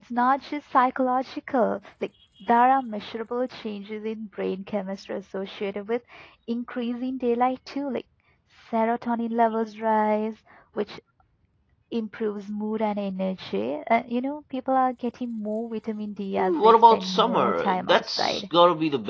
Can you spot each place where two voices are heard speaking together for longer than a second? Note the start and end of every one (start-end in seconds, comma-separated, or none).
16.4-18.4